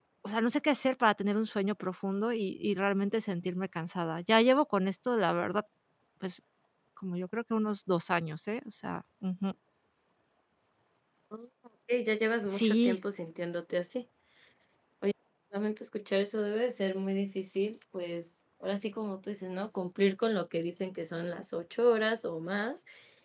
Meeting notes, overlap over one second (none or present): none